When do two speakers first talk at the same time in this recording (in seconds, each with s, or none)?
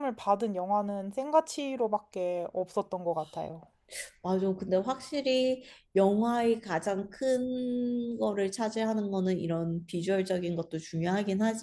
none